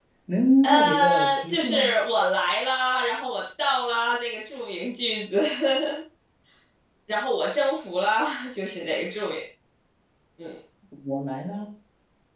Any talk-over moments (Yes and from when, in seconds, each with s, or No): Yes, from 0.6 s